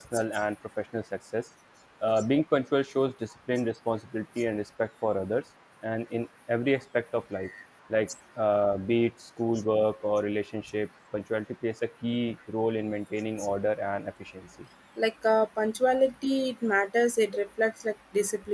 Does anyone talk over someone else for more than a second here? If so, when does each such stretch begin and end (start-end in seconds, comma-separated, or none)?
none